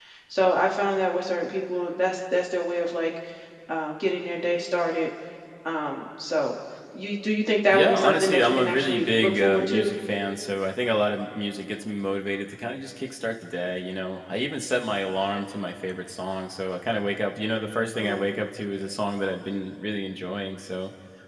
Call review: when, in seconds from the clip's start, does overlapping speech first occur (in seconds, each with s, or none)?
7.7 s